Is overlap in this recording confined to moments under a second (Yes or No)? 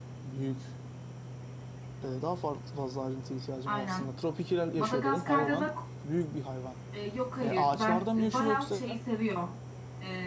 No